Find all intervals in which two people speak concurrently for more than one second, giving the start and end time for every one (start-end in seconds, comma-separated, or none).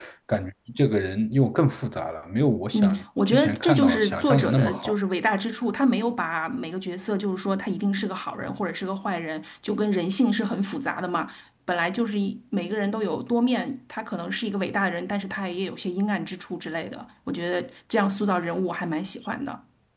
2.7-4.9